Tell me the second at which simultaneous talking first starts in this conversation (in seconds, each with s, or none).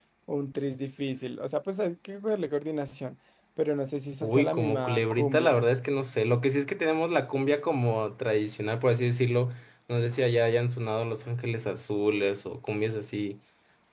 4.2 s